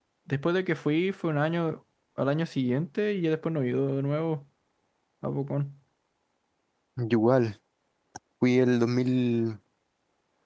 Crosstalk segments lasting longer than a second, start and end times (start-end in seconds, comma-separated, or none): none